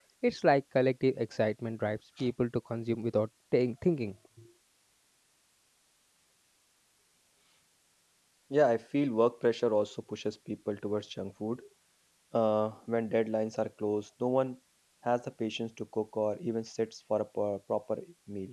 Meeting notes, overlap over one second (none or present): none